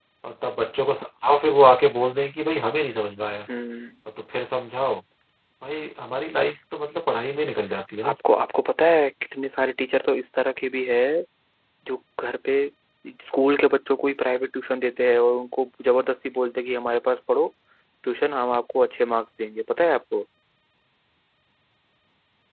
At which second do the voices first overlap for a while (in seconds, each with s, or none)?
none